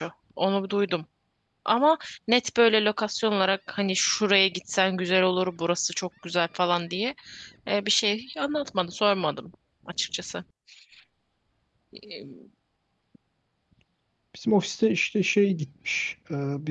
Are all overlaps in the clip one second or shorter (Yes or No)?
Yes